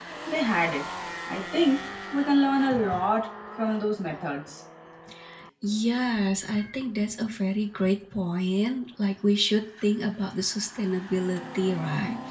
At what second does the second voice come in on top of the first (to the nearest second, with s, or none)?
none